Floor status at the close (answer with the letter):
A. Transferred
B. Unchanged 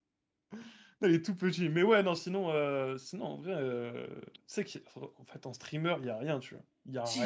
A